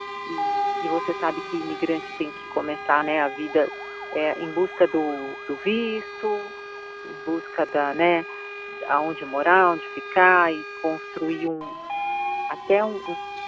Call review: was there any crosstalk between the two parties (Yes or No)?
No